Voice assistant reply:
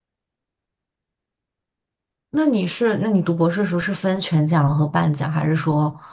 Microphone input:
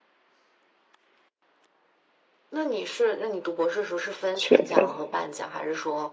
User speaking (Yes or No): Yes